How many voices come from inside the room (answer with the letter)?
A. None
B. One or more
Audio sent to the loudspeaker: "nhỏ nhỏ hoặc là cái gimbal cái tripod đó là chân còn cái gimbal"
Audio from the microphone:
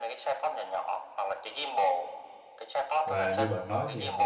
B